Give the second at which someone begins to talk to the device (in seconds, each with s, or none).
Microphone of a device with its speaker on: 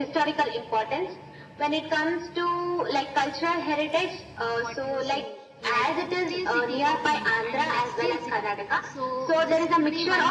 4.4 s